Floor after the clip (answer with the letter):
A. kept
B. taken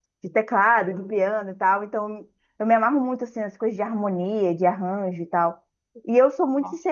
A